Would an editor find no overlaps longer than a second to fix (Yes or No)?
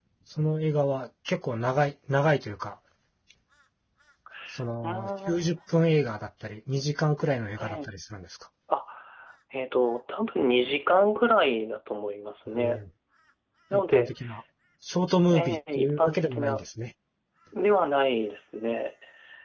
No